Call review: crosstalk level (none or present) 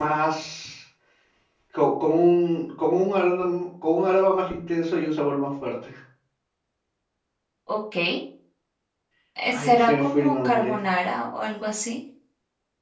present